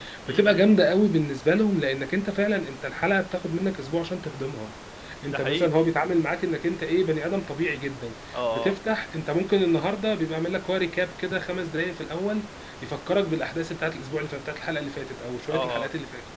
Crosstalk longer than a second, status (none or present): none